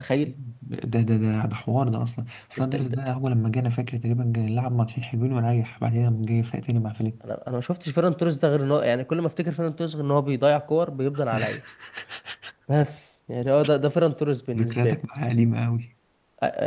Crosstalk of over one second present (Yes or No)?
No